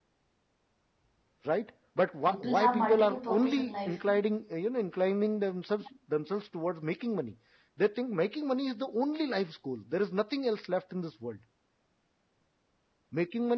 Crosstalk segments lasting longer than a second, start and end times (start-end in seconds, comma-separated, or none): 2.3-4.0